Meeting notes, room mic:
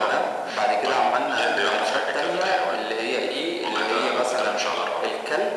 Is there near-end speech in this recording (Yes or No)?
No